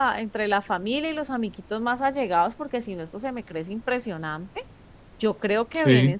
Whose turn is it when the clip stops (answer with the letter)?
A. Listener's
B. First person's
B